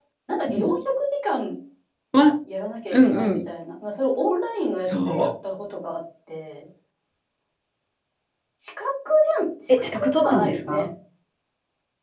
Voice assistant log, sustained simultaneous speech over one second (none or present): present